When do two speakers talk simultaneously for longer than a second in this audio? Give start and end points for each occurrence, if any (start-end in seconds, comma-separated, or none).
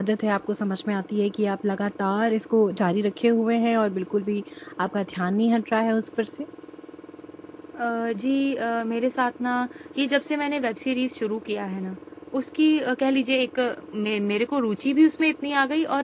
none